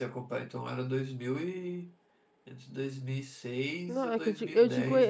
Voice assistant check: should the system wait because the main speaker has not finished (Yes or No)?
No